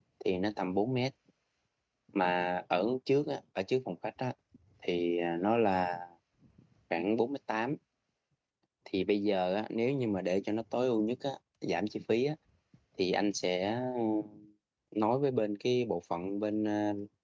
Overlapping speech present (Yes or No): No